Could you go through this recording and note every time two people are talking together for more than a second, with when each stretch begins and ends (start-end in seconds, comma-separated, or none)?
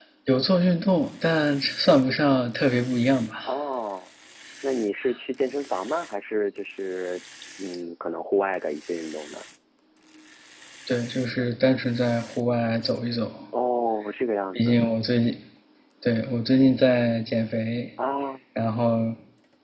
none